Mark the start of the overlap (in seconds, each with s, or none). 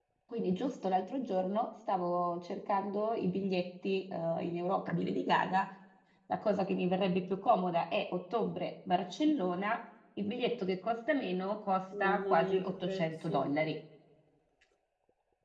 11.9 s